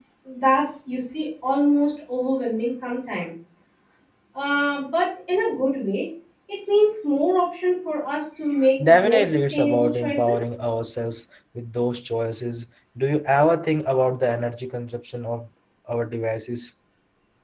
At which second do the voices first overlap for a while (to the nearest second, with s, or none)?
9 s